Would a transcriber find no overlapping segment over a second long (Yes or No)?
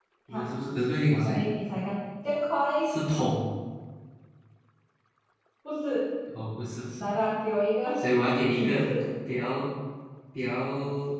Yes